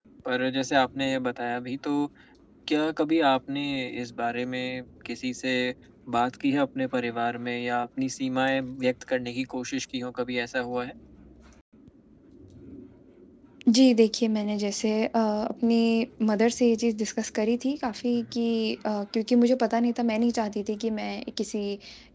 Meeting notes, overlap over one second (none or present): none